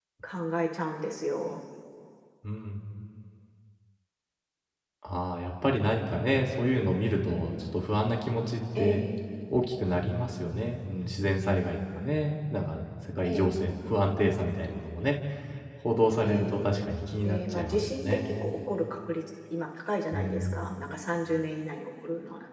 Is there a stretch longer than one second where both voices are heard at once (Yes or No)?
Yes